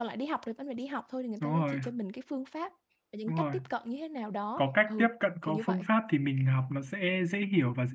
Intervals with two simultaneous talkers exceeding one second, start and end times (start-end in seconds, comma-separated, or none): none